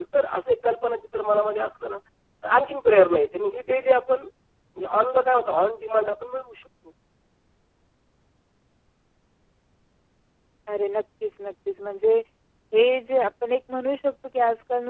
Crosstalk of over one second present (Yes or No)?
No